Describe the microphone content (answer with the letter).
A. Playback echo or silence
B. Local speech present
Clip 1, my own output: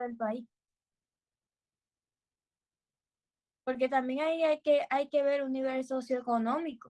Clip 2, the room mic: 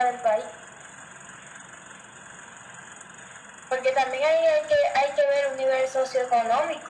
A